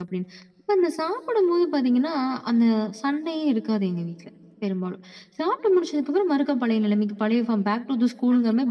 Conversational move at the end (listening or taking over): taking over